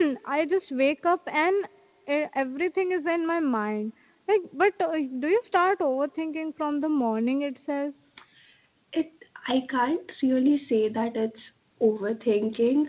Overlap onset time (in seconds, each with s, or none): none